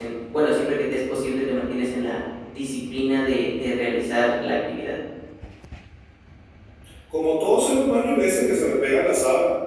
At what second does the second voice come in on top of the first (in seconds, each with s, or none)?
none